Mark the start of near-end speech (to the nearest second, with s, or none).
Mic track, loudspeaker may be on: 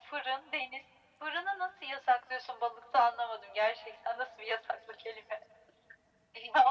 none